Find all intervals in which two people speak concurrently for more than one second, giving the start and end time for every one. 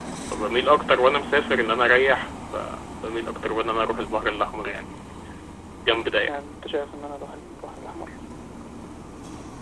none

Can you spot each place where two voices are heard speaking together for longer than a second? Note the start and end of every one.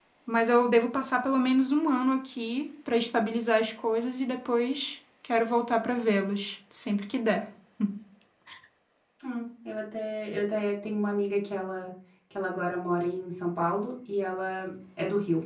none

